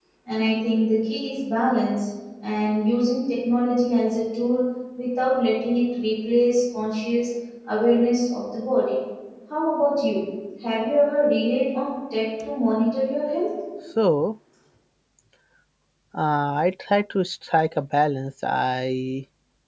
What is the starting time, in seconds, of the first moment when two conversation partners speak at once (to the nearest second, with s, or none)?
none